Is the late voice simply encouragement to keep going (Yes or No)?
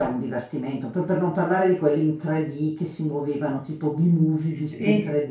Yes